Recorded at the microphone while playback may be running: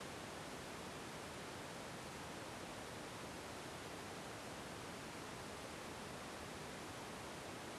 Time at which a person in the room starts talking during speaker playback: none

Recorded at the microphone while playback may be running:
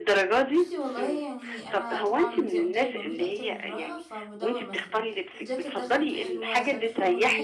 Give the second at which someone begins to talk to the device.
0.5 s

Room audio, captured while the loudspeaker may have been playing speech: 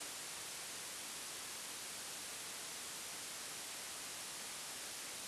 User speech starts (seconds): none

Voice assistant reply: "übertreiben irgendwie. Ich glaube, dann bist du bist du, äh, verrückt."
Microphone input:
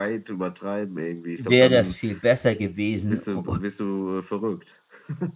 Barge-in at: 1.4 s

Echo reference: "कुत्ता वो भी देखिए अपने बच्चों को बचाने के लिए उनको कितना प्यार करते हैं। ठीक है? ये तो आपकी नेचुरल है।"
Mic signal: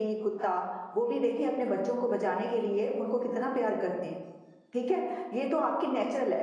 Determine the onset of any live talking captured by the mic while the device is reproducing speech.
none

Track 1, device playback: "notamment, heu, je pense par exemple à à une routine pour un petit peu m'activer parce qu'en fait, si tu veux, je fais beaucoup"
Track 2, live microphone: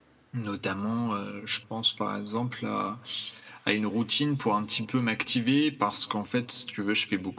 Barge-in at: none

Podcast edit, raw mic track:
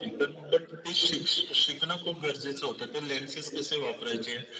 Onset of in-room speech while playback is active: none

